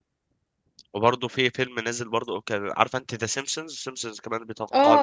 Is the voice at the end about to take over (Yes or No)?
Yes